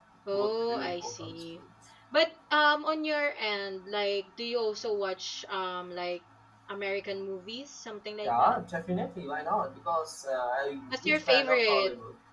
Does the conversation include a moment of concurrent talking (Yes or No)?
Yes